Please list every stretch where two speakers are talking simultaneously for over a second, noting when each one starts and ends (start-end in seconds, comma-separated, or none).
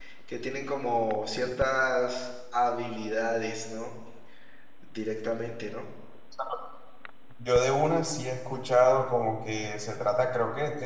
none